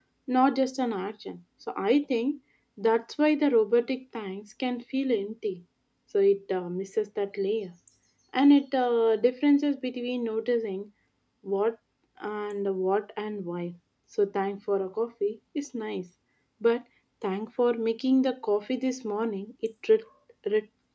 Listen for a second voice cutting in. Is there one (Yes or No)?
No